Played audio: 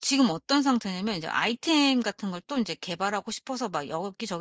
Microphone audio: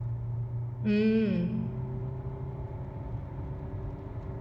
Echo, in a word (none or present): none